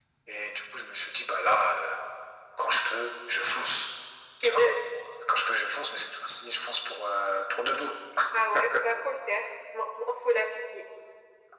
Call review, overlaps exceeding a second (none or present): none